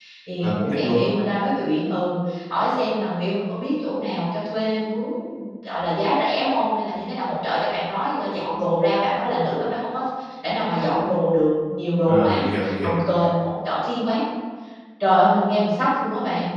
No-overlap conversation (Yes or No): No